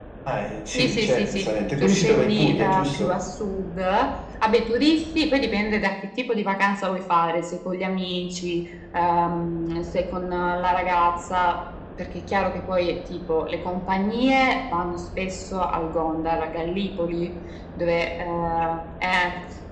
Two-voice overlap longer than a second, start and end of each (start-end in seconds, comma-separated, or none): 0.7-3.2